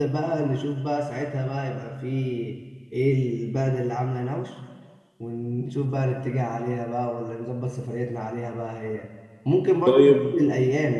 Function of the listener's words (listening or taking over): listening